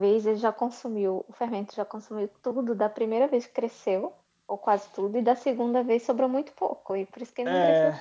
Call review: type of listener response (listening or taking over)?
taking over